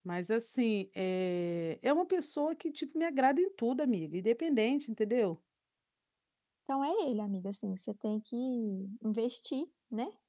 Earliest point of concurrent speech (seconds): none

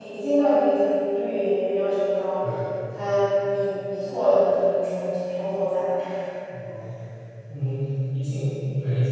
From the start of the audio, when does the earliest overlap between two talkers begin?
none

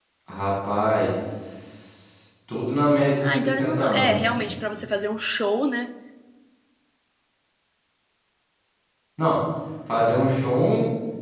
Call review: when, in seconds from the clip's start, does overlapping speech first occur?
3 s

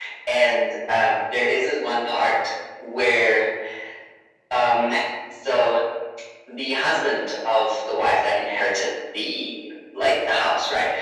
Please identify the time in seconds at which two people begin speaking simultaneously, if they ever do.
none

